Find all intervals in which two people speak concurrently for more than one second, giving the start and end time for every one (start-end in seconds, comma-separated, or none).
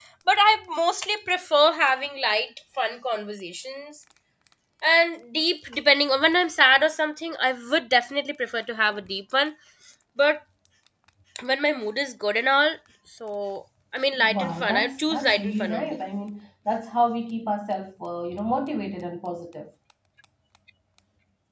14.3-16.0